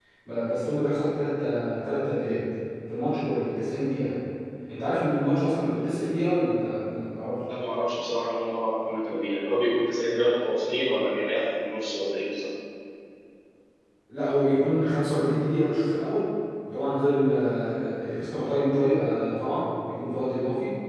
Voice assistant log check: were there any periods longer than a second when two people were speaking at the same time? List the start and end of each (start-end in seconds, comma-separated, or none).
none